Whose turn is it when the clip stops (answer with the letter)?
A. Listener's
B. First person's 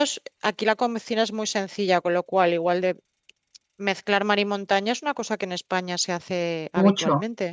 A